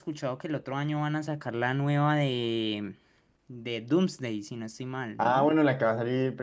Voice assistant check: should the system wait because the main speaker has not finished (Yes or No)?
No